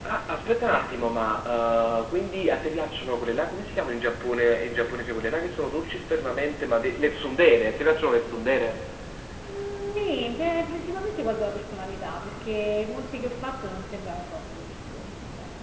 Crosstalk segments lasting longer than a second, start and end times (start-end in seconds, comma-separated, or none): none